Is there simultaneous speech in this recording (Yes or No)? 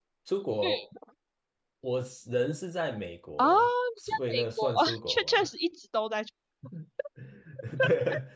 Yes